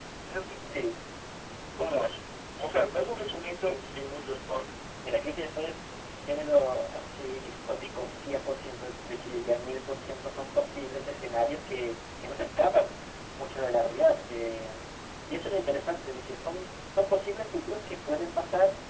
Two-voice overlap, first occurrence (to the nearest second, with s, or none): none